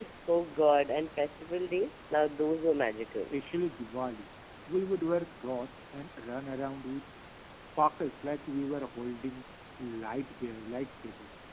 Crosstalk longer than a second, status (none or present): none